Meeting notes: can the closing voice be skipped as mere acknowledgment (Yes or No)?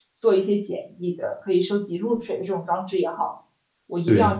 Yes